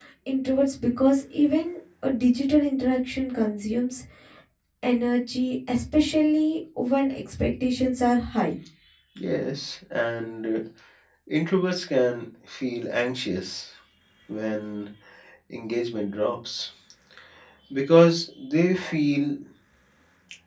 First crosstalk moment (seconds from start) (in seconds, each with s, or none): none